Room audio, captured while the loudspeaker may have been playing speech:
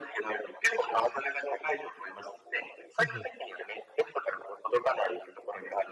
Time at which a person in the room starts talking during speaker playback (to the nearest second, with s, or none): 3 s